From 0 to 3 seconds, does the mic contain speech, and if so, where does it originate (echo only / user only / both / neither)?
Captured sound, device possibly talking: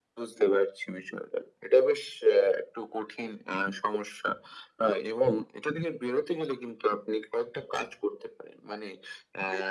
echo only